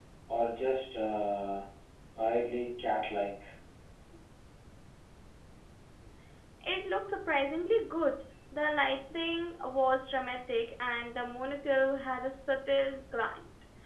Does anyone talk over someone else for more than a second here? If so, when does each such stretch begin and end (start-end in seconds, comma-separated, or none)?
none